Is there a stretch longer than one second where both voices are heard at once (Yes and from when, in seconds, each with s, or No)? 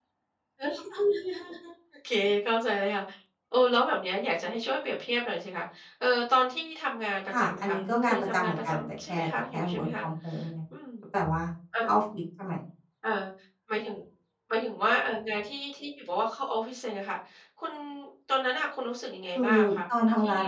Yes, from 7.4 s